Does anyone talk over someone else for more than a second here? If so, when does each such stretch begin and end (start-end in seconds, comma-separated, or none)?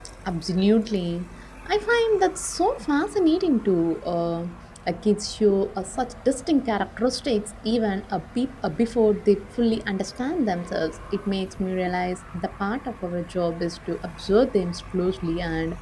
none